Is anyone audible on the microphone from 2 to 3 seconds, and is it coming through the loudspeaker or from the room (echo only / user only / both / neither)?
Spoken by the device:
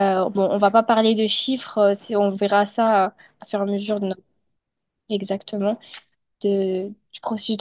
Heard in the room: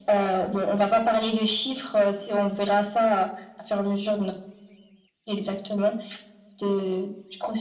echo only